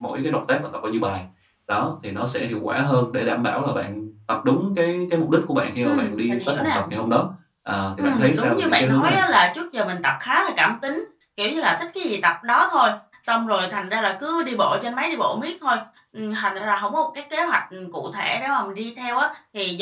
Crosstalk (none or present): present